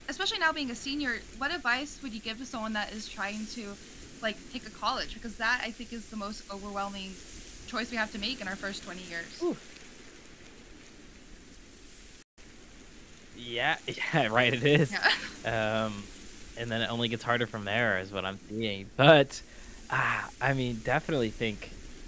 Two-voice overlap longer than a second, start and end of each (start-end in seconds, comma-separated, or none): none